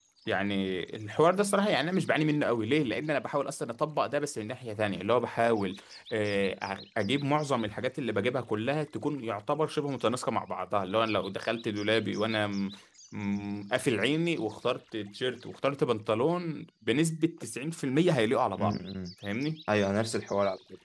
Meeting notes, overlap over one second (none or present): none